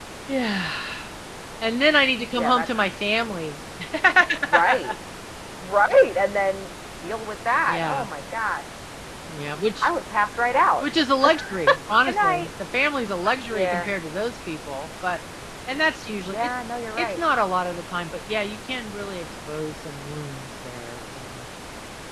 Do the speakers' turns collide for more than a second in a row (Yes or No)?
No